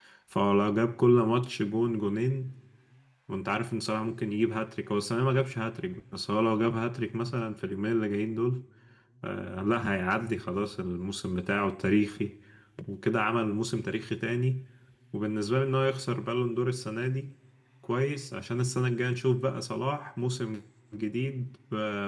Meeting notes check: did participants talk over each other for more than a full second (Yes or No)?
No